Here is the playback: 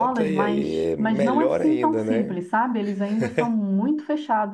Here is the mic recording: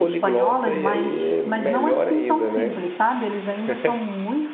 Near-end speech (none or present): none